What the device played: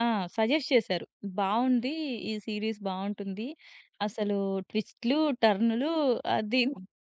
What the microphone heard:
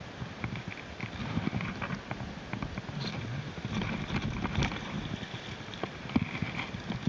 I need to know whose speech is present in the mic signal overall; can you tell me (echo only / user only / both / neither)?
neither